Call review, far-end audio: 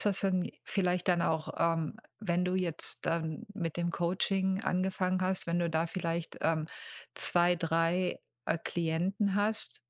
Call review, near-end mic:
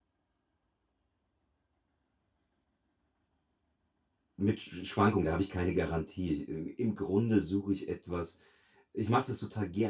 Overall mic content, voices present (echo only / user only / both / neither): user only